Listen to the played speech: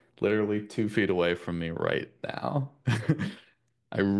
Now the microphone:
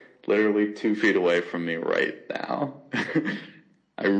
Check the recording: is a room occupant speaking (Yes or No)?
No